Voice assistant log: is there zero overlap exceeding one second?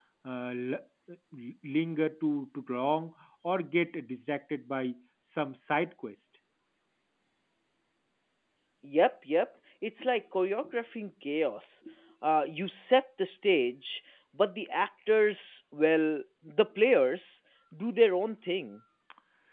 Yes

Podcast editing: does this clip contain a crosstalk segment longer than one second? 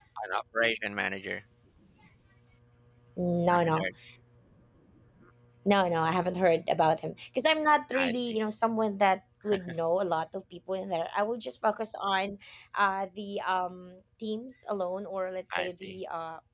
No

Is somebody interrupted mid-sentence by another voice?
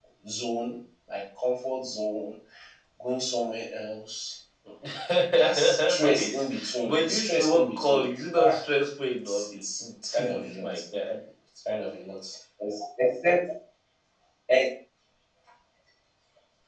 Yes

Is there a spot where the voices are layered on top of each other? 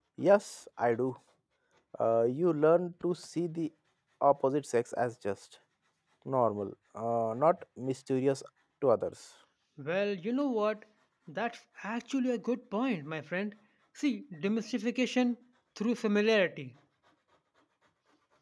No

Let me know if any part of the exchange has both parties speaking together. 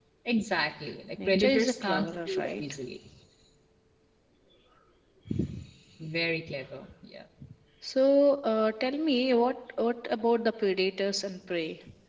Yes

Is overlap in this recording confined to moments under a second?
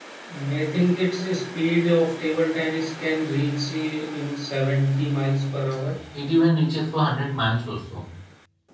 Yes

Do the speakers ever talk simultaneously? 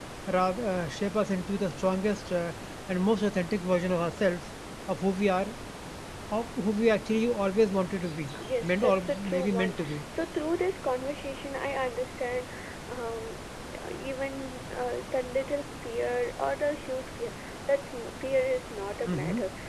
Yes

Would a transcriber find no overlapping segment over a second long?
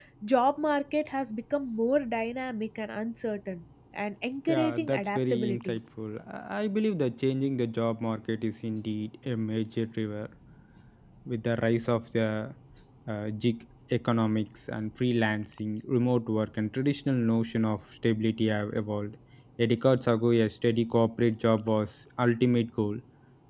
No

